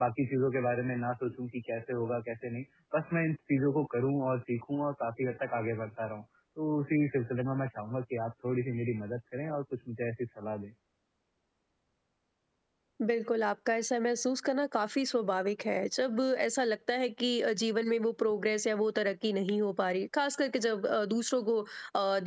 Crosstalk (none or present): none